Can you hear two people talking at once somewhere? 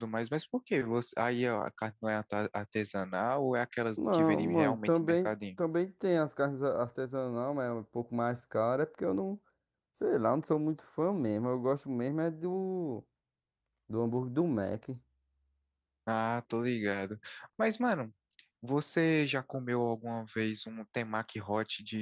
Yes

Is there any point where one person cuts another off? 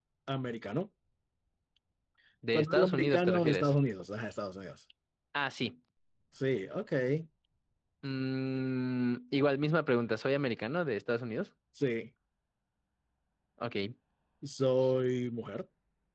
Yes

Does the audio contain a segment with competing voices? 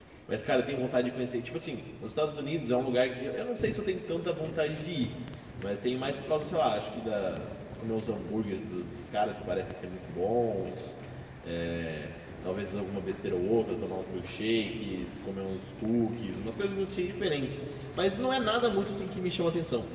No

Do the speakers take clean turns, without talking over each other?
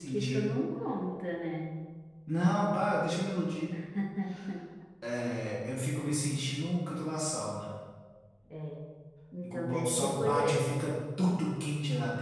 No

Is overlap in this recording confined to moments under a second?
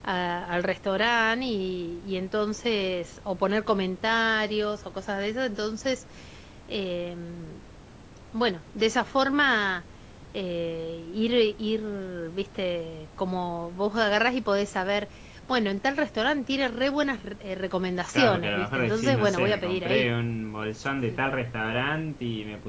No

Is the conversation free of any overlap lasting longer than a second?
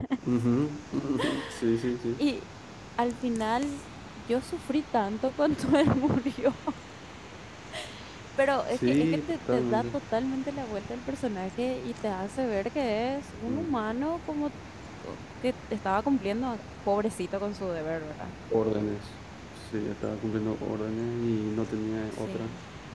No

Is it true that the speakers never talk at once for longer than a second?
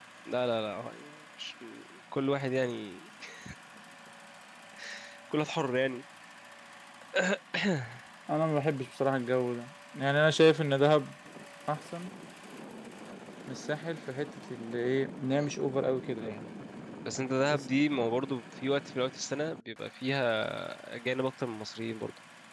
Yes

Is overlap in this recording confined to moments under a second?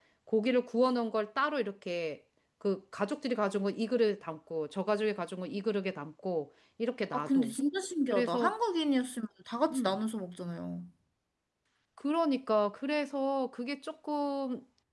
Yes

